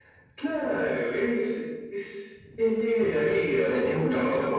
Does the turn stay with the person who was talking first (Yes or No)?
No